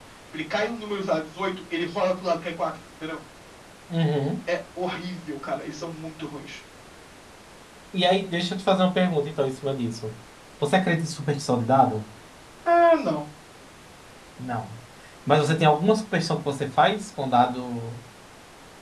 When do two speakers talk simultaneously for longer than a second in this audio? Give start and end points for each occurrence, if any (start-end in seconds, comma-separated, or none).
none